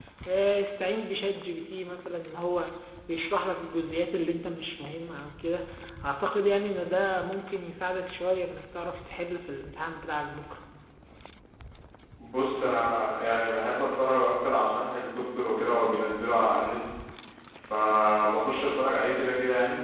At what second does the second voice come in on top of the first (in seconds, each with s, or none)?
none